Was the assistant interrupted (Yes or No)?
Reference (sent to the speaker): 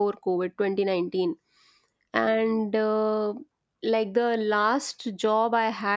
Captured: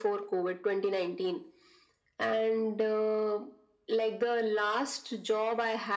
No